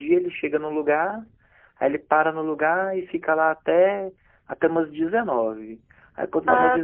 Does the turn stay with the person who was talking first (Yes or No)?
Yes